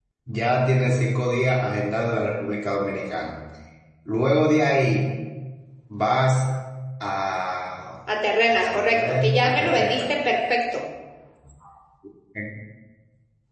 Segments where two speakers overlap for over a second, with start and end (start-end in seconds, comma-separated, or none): 8.5-10.1